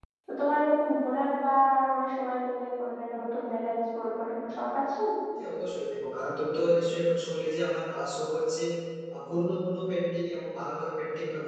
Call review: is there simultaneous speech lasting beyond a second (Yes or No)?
No